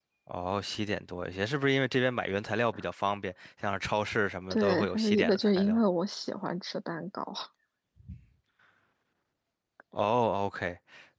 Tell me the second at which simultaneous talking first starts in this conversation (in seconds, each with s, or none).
4.5 s